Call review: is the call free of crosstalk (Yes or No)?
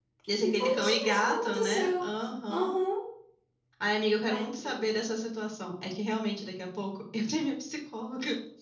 No